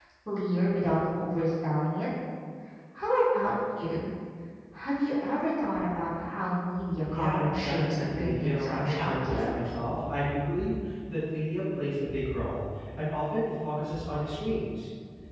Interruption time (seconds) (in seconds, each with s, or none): 7.0 s